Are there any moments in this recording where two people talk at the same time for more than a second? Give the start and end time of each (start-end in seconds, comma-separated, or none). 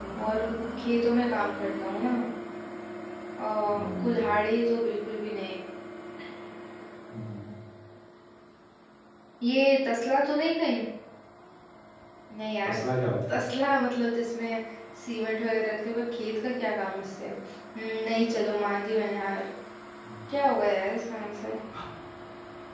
none